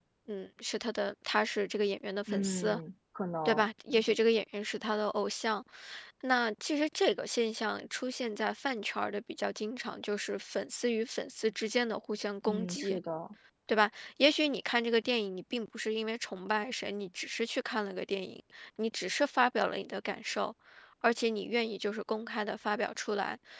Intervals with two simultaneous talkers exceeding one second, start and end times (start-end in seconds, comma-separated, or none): none